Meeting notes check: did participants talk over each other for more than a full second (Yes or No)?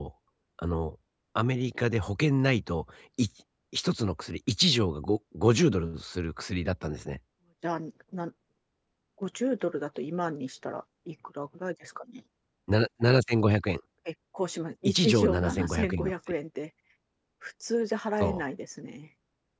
Yes